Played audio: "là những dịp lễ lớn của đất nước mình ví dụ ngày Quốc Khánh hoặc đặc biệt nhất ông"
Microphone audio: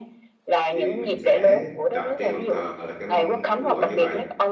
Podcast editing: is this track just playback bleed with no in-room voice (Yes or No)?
No